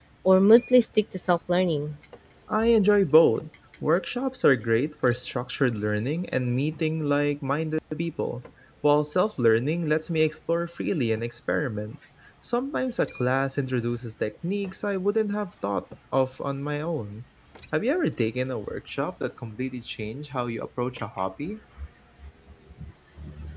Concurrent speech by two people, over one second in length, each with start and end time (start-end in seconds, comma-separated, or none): none